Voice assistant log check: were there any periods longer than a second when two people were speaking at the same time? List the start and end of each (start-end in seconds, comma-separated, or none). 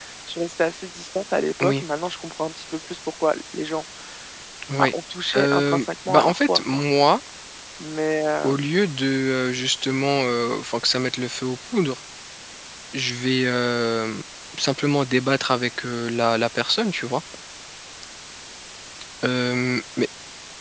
5.3-6.8